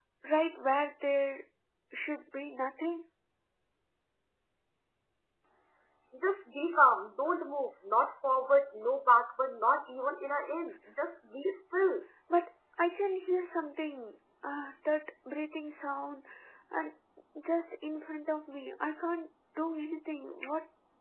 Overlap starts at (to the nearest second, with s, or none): none